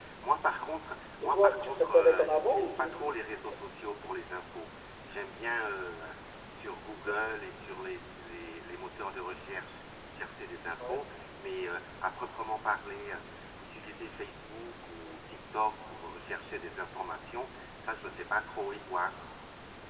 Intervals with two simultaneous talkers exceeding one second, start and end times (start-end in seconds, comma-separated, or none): 1.2-3.0